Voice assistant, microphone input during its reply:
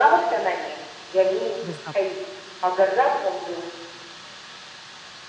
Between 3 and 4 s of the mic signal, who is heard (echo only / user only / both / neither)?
echo only